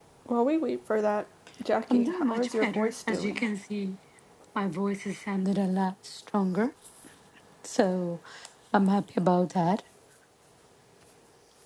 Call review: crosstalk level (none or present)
present